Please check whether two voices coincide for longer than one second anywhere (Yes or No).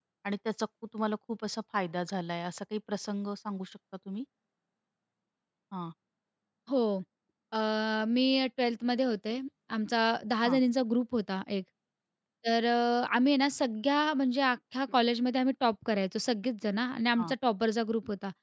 No